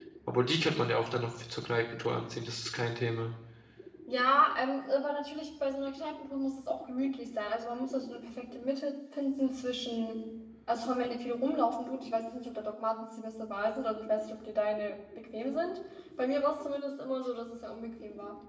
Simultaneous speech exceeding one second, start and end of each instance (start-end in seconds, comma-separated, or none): none